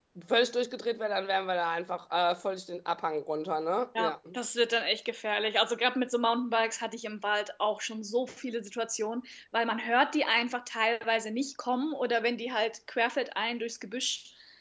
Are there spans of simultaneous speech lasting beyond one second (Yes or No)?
No